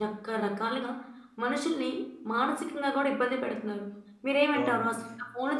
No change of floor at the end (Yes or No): Yes